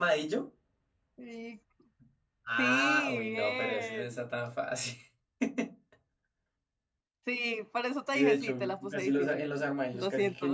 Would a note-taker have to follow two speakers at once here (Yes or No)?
Yes